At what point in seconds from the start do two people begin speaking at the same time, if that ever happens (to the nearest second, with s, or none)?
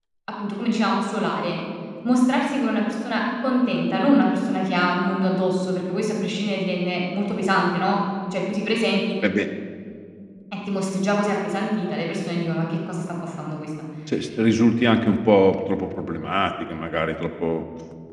none